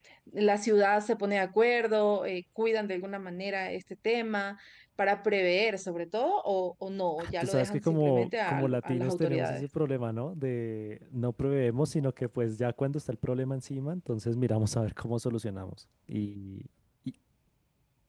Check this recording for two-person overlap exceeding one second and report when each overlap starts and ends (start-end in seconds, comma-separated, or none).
7.4-9.6